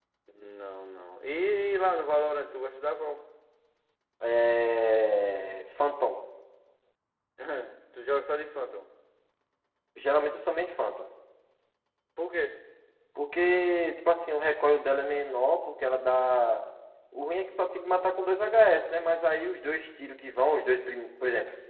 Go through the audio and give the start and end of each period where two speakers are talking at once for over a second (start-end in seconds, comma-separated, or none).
none